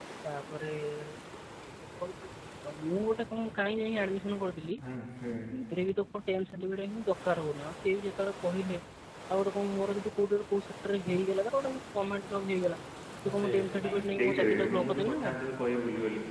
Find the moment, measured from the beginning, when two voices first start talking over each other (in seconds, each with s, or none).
13.3 s